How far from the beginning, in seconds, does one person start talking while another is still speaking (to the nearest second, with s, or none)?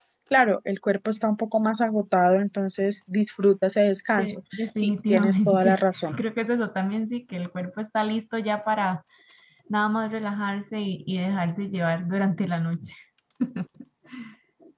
4 s